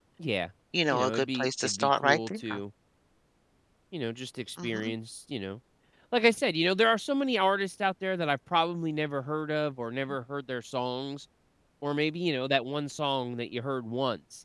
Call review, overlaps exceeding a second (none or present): present